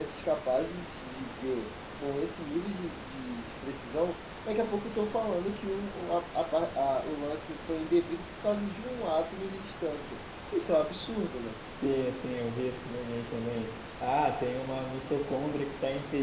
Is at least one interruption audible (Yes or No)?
No